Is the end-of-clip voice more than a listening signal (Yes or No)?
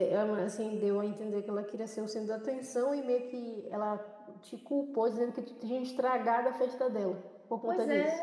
Yes